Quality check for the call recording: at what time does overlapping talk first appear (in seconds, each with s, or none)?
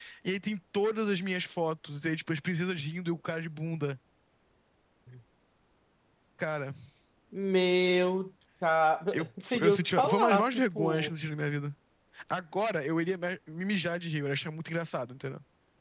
9.1 s